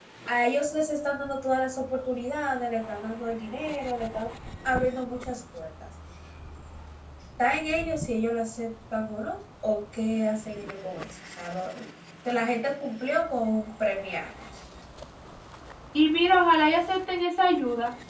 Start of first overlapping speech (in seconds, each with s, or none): none